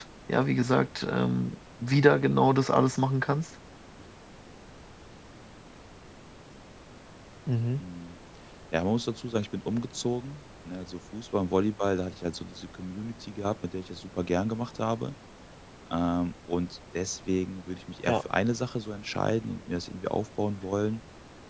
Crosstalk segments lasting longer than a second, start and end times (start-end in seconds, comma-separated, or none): none